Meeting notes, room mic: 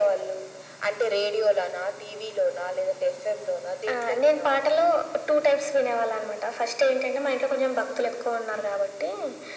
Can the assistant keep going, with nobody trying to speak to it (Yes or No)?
Yes